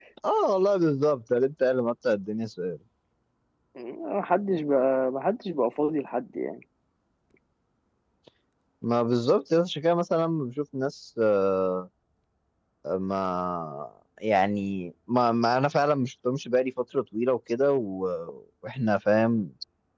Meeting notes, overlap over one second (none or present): none